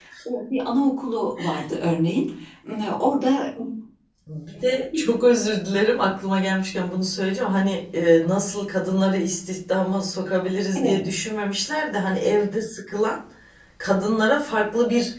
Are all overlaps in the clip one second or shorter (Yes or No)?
Yes